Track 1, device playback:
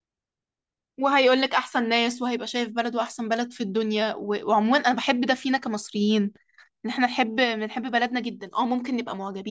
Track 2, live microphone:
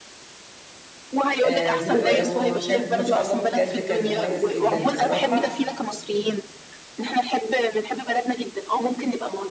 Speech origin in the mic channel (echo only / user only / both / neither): both